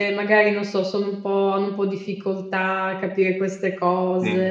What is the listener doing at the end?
listening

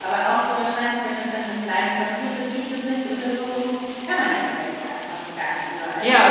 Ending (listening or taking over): taking over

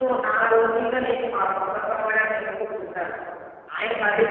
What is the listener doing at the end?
listening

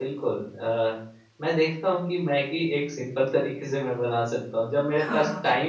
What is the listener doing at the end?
listening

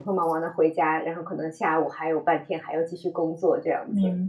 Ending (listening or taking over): taking over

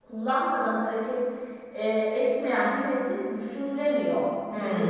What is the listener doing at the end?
taking over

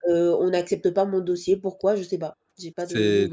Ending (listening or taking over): taking over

